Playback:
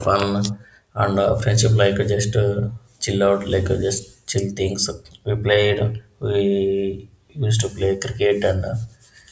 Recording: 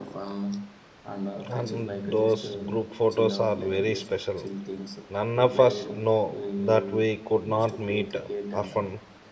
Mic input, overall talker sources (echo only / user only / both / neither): both